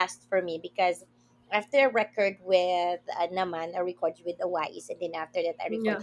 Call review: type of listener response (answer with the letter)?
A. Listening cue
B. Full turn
A